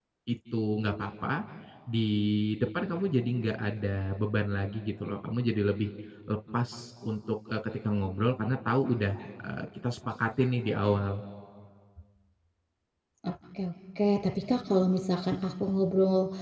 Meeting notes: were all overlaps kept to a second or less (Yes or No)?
Yes